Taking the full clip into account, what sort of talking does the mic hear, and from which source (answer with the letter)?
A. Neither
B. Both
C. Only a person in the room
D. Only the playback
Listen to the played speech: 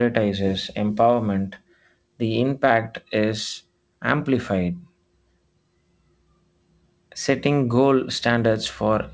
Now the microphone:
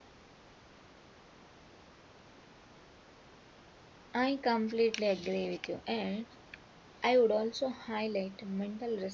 C